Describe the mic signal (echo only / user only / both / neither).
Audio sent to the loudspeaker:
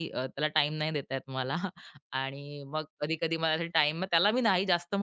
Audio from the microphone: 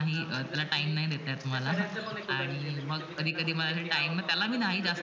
both